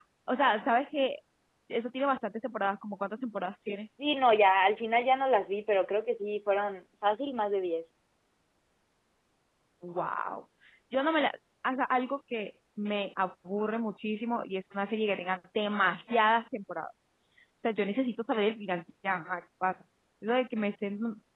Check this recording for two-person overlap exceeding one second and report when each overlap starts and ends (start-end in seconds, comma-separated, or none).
none